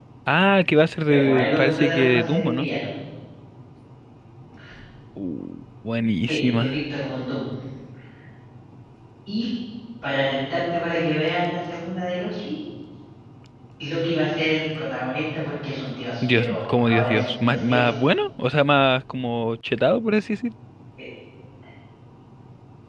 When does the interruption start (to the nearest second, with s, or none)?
1 s